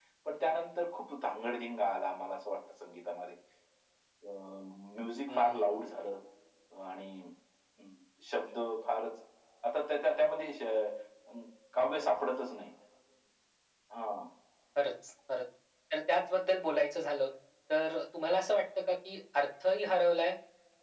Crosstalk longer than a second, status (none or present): none